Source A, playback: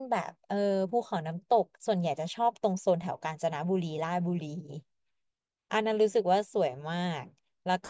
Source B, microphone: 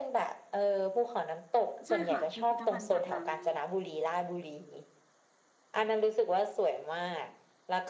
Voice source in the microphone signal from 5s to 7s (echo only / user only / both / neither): echo only